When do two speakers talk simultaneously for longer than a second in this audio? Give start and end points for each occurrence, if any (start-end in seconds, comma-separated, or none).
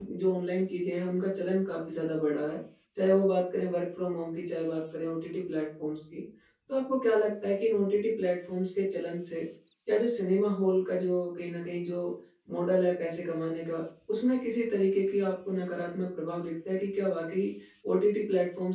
none